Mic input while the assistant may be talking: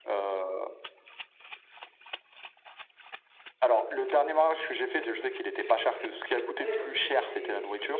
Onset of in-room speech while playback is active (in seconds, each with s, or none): 6.6 s